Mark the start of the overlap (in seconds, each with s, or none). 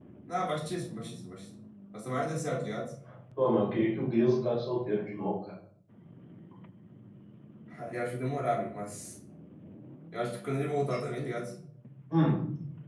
none